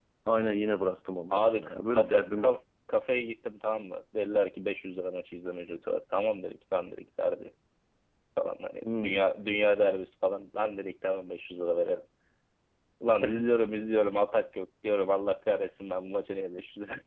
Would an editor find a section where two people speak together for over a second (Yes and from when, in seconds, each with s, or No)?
Yes, from 1.3 s